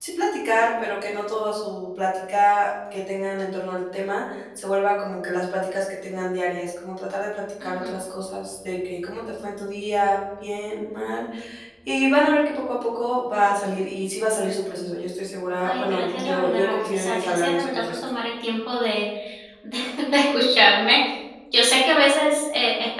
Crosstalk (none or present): present